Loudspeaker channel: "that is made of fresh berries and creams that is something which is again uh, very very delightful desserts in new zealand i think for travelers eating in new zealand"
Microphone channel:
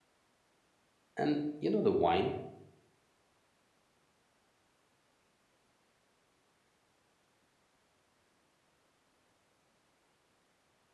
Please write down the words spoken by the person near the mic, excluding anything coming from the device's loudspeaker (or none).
And you know, the wine.